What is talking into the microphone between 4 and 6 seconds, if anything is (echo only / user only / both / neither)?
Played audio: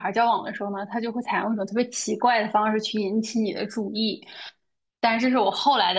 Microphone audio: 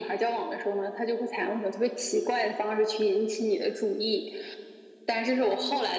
echo only